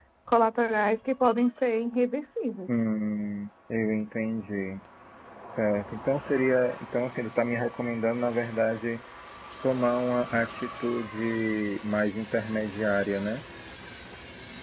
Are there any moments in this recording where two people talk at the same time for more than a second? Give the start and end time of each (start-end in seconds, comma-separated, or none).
none